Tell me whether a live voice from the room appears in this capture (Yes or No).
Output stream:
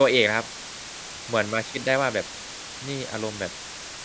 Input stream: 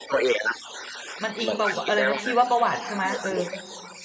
Yes